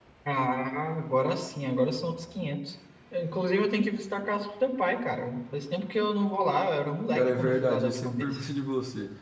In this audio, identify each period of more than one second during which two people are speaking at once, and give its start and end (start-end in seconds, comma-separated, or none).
7.1-8.4